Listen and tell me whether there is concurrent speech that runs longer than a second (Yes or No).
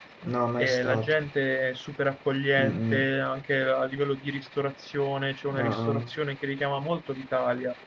No